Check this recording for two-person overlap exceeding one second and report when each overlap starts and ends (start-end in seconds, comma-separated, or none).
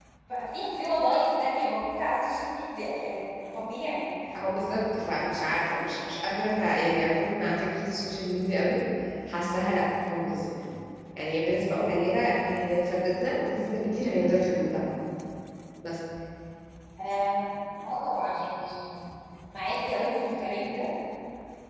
none